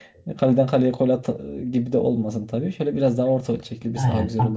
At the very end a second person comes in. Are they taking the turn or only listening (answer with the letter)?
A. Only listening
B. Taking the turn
B